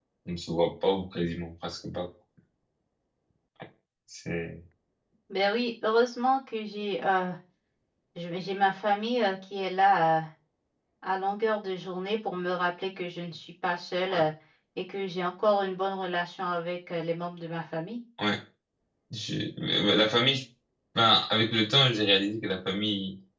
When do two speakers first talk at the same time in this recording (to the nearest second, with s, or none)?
none